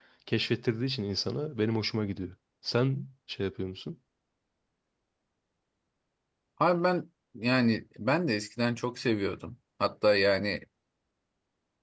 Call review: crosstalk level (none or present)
none